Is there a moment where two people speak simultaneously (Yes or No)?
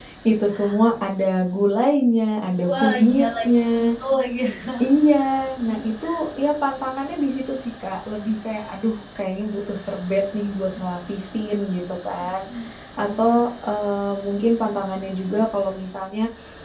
Yes